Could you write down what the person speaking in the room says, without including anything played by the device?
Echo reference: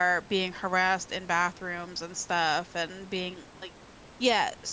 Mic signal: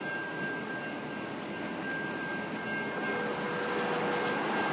none

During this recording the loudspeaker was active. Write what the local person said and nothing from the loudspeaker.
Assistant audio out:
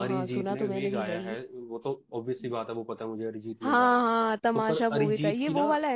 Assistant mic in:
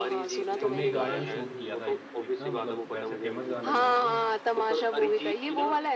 हमने एक गाना भी शूट किया था एक, एक ना मतलब वैसे फेमस गाना नहीं है वो

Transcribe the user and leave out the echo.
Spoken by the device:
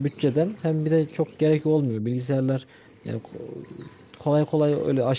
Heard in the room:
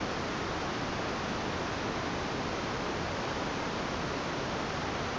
none

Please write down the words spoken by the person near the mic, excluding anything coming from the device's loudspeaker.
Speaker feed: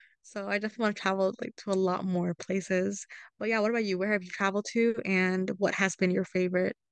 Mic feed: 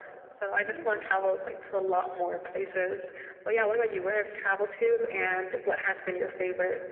Oh,

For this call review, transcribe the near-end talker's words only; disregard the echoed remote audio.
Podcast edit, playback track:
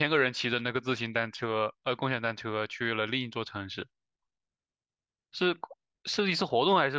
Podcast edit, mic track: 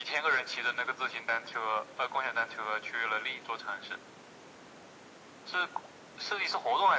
none

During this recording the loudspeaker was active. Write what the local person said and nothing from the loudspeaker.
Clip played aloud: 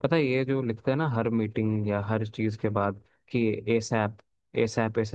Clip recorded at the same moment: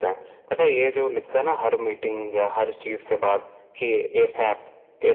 none

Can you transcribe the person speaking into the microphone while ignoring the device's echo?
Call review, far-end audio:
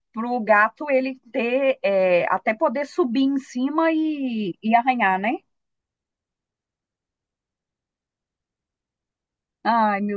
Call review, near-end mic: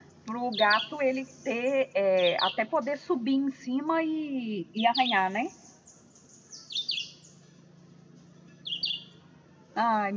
none

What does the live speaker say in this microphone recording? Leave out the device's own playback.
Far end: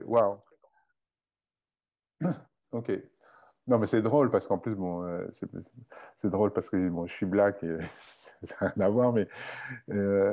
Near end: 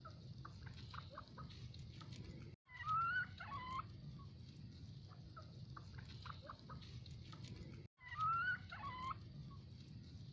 none

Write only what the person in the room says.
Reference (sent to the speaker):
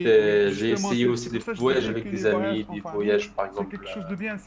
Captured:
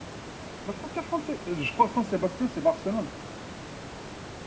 La frontière française, euh, je crois que Saint-Sébastien, c'est Barcelone.

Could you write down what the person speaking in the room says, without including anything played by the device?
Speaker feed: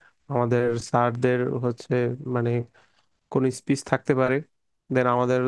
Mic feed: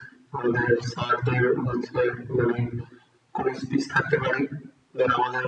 none

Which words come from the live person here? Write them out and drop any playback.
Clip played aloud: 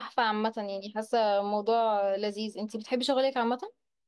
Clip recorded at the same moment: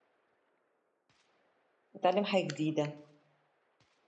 هاتعلّم حاجة جديدة،

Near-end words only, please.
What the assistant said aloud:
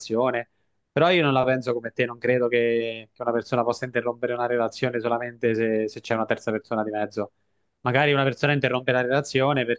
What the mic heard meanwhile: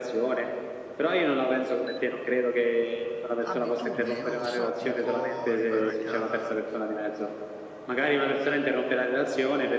Abitudini, non lo so, tipo arrivare a casa

